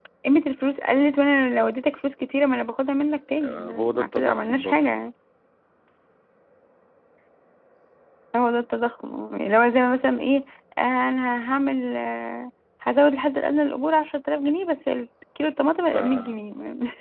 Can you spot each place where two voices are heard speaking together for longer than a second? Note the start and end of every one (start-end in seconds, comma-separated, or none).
3.4-4.8